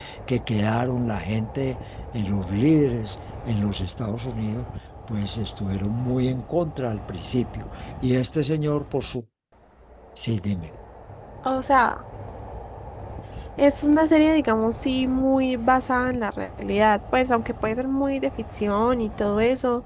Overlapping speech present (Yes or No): No